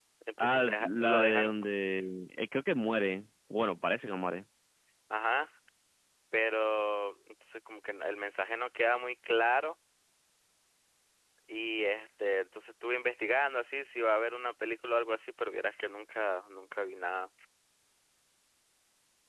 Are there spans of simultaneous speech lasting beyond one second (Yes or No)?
Yes